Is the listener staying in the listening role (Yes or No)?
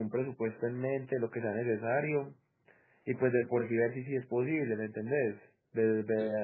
Yes